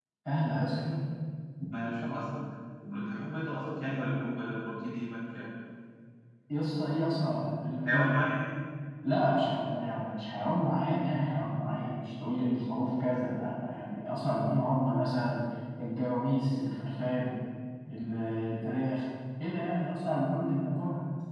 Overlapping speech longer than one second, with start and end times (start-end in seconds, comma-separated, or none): none